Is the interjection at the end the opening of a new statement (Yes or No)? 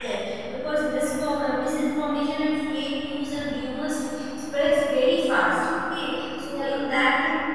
No